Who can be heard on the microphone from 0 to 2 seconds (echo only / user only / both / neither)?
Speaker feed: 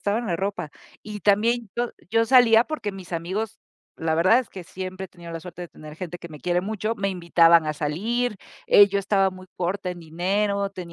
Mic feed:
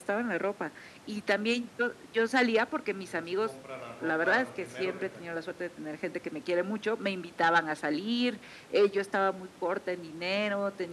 echo only